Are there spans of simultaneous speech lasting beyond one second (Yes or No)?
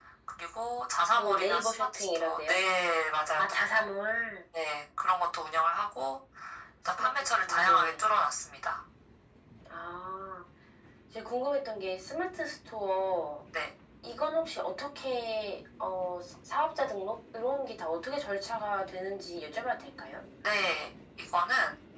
Yes